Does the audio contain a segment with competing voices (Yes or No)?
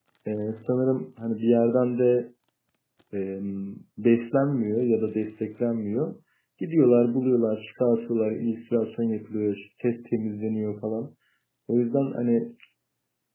No